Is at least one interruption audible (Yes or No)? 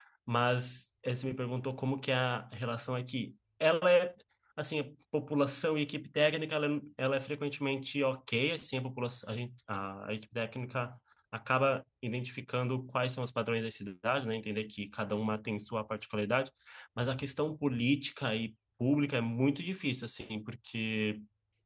No